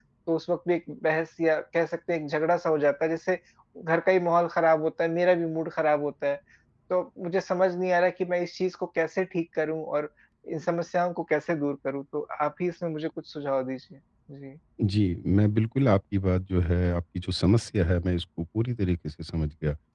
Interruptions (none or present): none